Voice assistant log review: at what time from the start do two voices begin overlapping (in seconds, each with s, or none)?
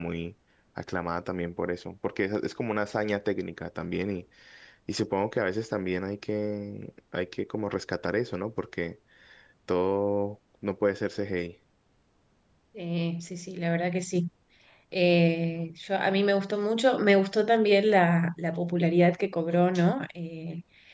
none